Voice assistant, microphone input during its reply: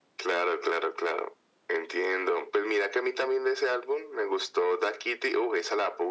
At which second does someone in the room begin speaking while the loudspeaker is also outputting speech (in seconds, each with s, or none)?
none